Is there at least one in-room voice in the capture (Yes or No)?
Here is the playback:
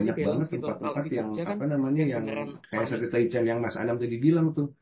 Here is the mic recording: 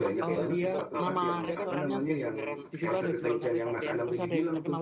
Yes